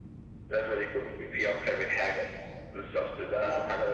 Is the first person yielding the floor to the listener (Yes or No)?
No